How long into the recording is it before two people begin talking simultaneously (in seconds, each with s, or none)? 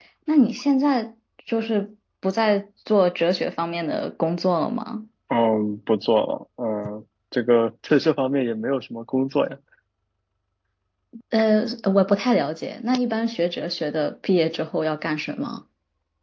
none